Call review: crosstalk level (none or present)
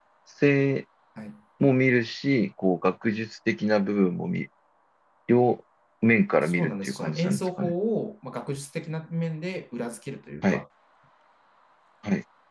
present